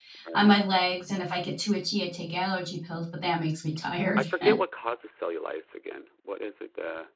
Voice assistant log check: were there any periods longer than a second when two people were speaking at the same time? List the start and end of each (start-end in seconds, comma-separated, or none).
none